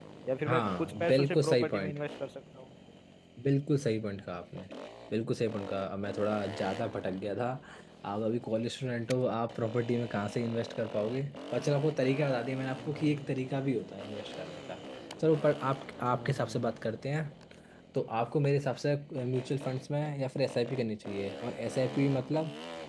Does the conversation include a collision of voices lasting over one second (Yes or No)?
Yes